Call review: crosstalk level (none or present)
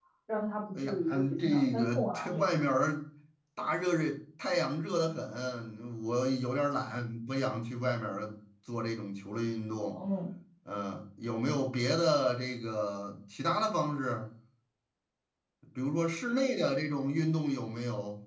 present